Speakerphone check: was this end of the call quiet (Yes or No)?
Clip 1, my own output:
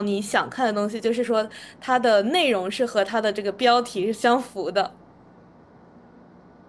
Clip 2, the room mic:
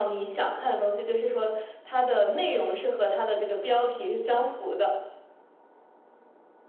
Yes